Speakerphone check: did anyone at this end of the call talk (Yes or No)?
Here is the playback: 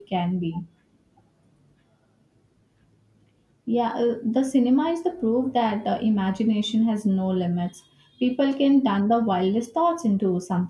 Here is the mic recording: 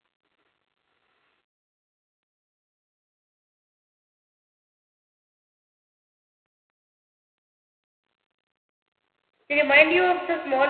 Yes